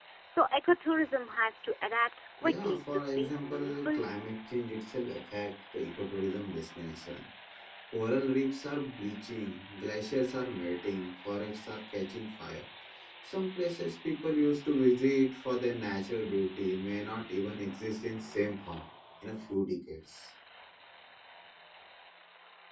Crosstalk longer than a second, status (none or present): present